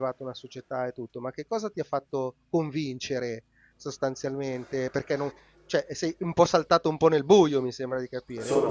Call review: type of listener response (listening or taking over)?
taking over